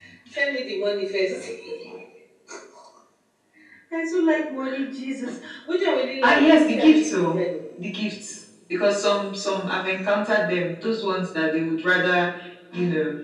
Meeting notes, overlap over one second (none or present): present